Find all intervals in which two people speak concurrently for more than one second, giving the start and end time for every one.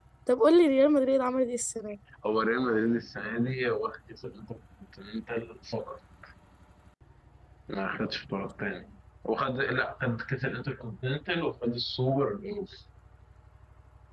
none

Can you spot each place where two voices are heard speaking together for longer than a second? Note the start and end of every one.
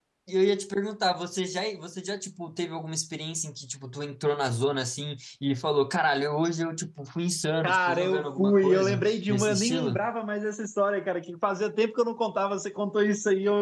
7.6-10.1

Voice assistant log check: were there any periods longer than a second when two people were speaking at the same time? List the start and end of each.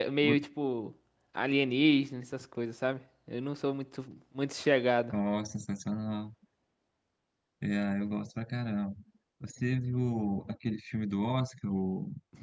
none

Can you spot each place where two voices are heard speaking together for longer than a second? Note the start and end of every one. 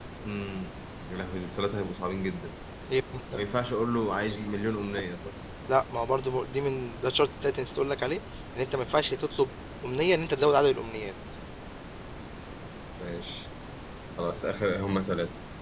none

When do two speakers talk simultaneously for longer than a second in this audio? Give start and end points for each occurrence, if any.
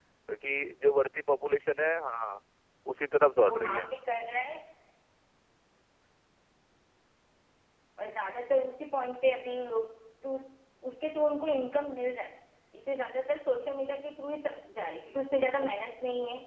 none

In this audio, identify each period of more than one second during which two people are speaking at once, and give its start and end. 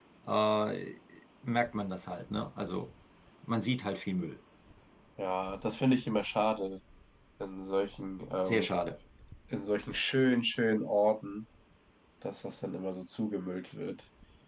none

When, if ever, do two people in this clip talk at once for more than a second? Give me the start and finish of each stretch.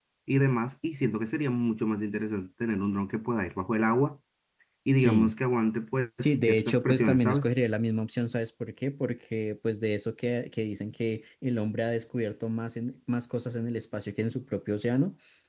6.2-7.5

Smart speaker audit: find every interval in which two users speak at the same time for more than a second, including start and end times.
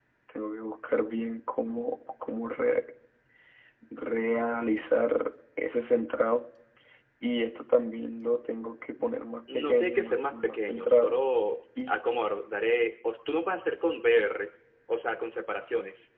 9.5-11.2

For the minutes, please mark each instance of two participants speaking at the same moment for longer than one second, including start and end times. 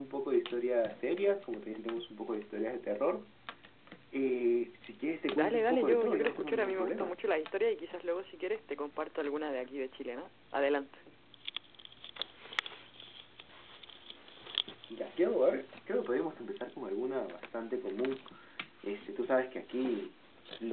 5.3-7.2

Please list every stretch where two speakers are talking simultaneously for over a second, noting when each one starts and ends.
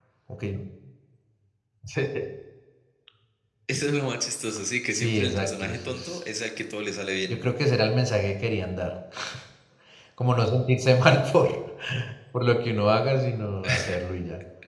4.9-6.2

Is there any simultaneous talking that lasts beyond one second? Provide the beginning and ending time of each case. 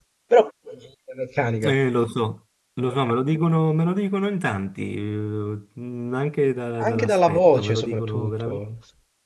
6.8-8.6

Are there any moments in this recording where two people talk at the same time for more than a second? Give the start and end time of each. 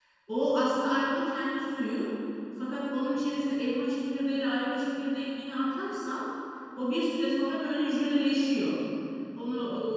none

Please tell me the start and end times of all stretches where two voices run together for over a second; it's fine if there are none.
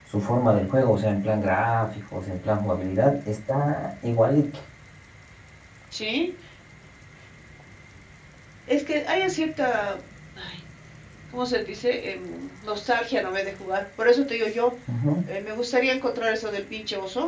none

